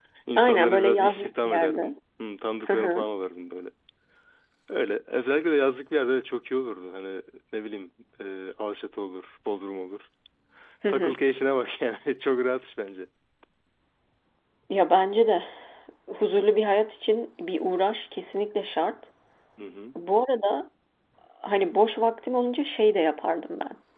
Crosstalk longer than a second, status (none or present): present